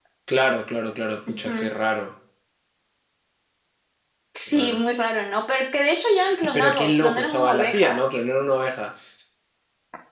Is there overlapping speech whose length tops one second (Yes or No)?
Yes